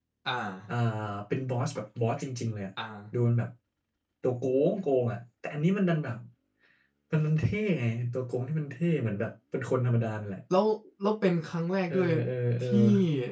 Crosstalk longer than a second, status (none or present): none